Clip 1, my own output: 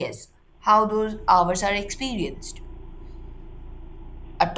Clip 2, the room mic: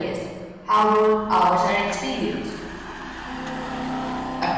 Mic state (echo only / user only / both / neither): echo only